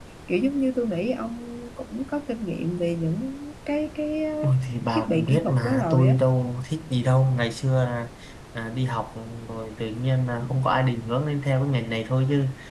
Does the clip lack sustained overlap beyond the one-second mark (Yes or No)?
No